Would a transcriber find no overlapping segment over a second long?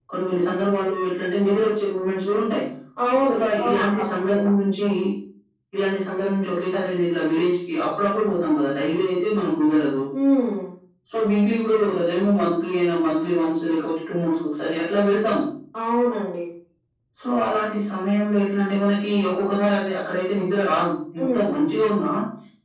No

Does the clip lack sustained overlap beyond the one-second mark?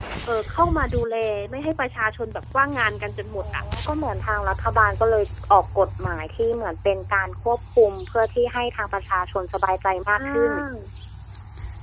Yes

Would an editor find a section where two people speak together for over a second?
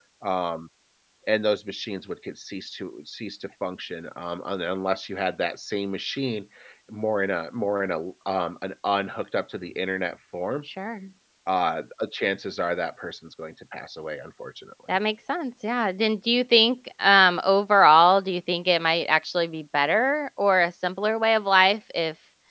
No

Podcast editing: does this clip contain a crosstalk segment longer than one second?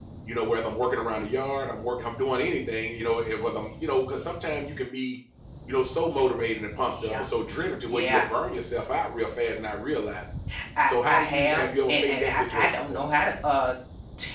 Yes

